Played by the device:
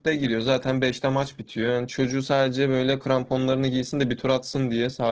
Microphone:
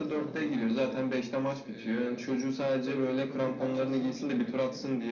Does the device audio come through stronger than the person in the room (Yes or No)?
Yes